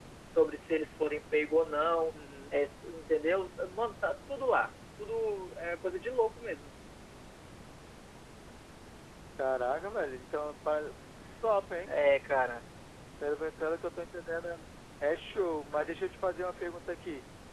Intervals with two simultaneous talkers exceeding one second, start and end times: none

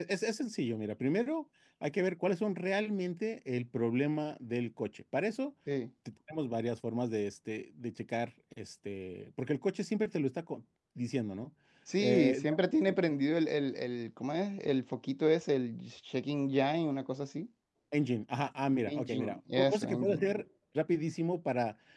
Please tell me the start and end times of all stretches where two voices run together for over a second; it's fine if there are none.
18.9-20.3

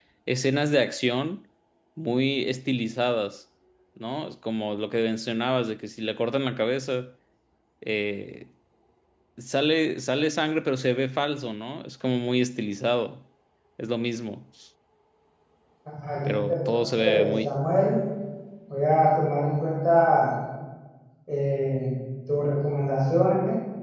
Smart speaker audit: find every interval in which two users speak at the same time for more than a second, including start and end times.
16.3-17.6

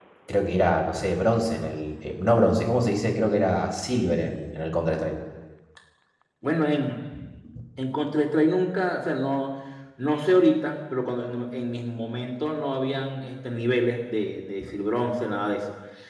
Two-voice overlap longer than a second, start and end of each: none

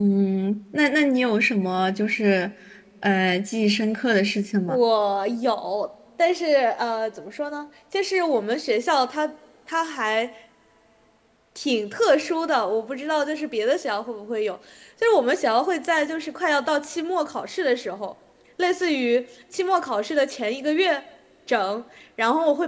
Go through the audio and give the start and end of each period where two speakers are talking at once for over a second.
none

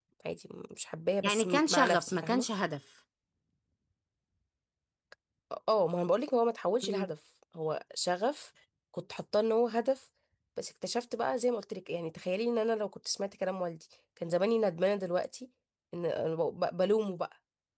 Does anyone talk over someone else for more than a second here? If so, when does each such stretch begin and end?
1.2-2.4

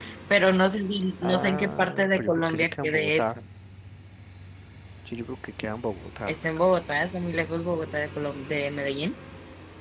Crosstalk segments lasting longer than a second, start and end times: 1.2-3.4

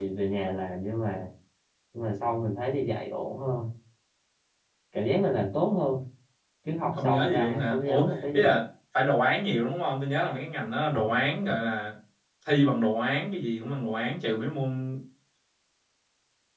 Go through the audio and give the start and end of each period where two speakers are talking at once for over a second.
7.0-8.5

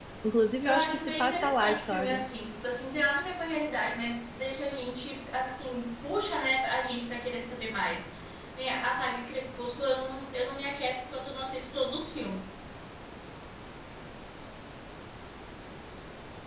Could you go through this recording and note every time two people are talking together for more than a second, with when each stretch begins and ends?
0.7-2.3

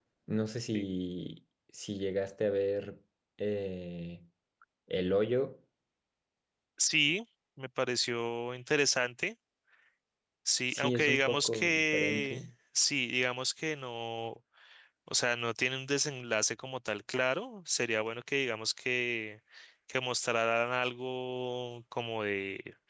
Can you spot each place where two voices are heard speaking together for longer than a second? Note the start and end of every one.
10.7-12.5

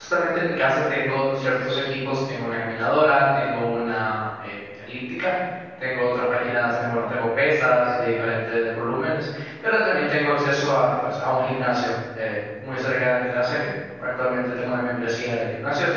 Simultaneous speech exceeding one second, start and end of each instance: none

